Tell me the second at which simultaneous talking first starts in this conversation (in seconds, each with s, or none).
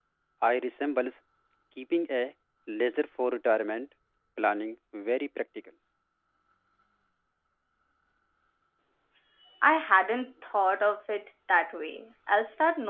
none